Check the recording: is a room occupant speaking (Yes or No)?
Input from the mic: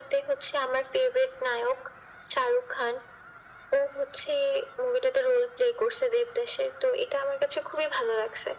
No